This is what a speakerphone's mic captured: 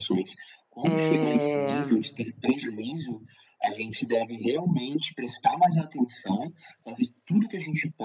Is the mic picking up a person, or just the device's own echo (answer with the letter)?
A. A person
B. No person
A